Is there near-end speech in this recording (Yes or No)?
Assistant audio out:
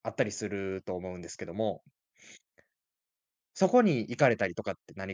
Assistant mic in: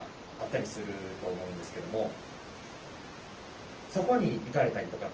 No